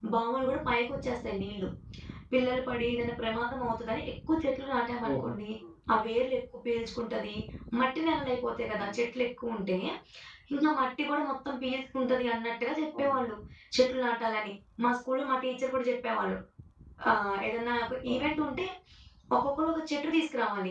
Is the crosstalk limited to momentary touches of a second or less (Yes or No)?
Yes